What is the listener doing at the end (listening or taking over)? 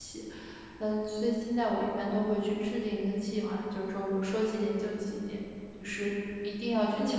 taking over